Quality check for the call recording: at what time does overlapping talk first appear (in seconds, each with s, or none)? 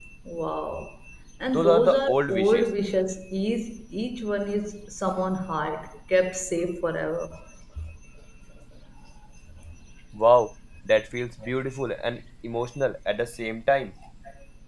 1.5 s